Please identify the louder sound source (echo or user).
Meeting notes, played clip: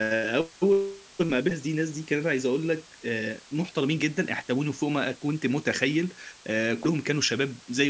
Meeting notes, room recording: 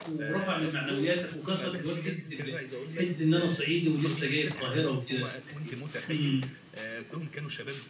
user